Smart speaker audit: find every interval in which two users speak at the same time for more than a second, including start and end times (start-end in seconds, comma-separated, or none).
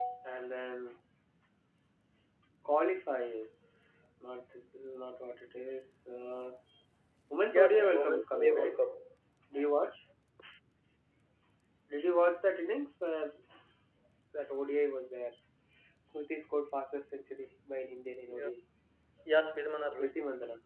7.5-8.8